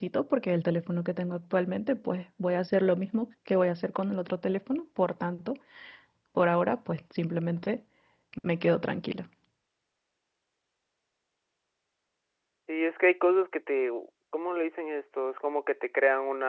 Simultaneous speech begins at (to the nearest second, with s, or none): none